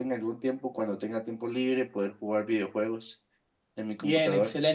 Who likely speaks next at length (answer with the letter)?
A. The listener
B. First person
A